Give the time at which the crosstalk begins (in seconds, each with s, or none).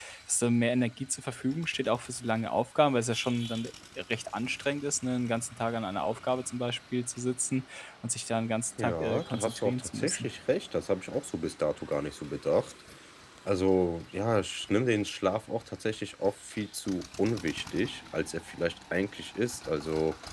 8.8 s